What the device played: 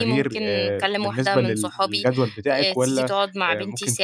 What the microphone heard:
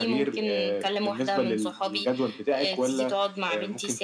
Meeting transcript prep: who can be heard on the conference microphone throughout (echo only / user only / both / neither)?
echo only